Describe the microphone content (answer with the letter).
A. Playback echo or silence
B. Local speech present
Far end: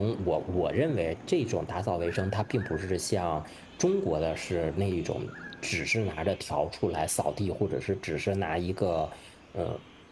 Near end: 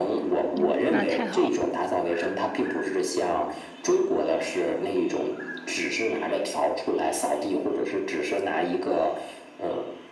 B